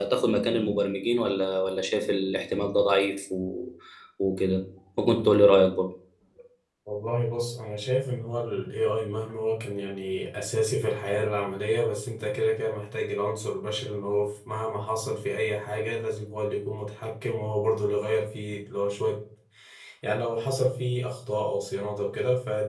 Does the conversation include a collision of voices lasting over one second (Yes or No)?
No